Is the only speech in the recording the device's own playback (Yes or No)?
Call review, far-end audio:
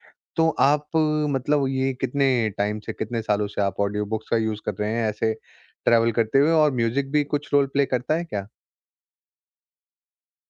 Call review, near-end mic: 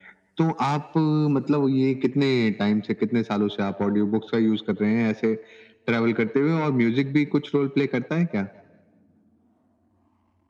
Yes